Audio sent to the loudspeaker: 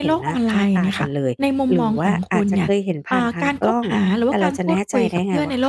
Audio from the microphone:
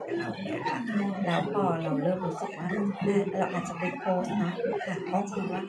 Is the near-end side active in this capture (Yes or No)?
Yes